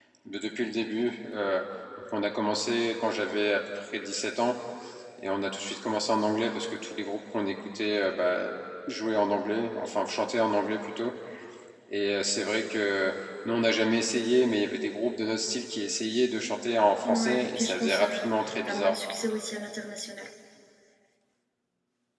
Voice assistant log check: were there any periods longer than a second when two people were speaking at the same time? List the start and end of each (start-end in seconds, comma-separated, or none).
17.1-18.3